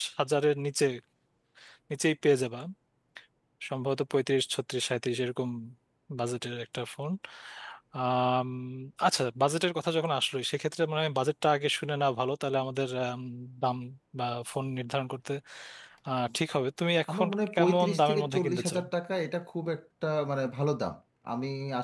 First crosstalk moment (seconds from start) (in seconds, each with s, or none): 17.1 s